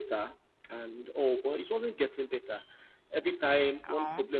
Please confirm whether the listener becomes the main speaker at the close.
No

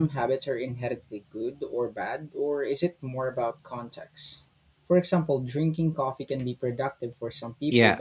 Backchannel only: No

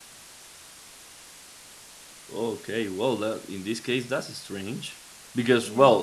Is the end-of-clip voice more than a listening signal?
No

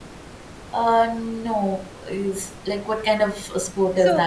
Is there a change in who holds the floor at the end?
Yes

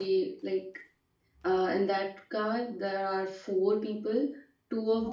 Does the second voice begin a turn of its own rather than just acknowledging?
No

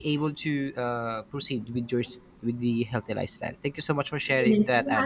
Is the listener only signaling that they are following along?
No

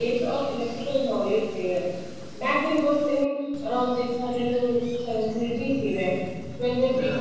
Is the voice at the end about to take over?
No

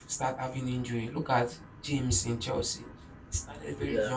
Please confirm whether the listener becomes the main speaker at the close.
No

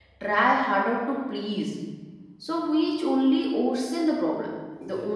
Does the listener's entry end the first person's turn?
No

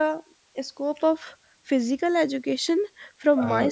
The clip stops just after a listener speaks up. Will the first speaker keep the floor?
Yes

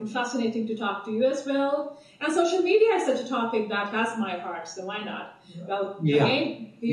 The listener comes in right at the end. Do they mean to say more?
No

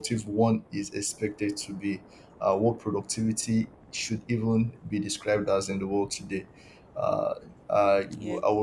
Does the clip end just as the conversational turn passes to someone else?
No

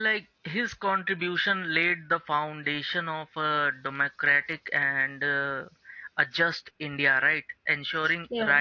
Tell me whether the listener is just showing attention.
Yes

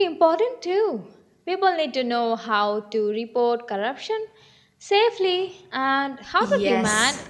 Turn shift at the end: Yes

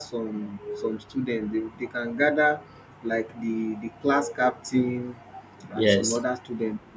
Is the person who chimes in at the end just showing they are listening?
Yes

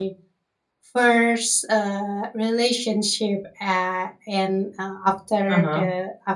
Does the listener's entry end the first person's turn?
No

